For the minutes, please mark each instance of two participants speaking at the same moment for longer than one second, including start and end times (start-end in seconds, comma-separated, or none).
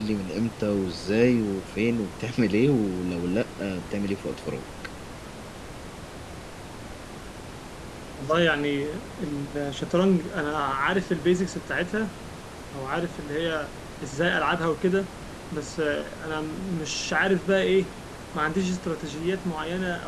none